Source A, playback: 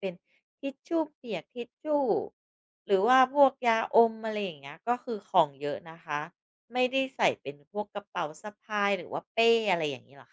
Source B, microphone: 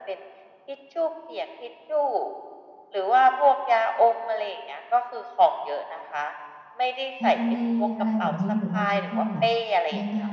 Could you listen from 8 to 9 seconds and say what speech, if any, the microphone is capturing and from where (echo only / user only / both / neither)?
both